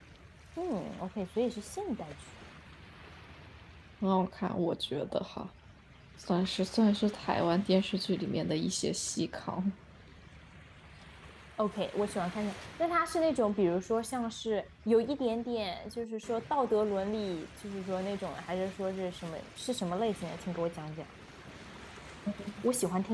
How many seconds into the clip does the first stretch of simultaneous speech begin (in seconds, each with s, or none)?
none